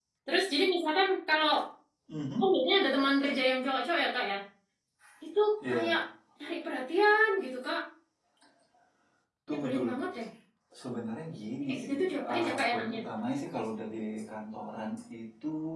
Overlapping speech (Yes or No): Yes